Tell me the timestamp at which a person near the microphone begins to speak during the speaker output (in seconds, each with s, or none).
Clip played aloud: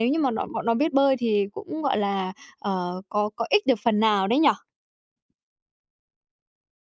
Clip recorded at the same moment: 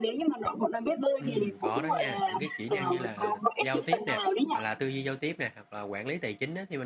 1.2 s